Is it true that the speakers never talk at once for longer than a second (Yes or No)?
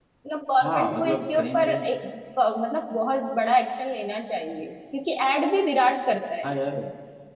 No